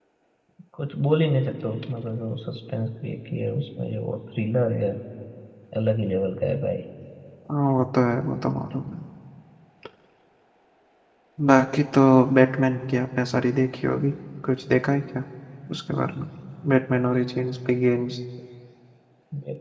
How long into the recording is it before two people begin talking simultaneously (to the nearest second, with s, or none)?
none